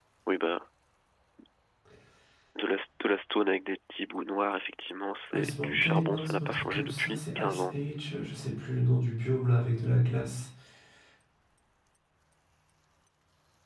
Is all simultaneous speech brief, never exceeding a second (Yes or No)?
No